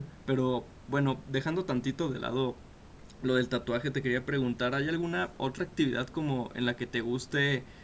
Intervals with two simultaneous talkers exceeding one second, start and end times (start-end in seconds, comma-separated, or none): none